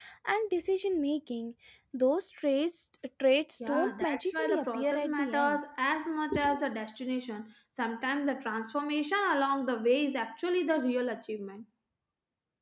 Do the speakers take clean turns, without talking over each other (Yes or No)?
No